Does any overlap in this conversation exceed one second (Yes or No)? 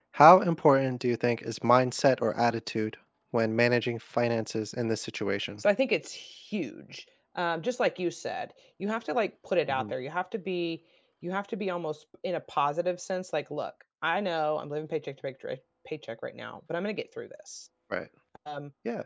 No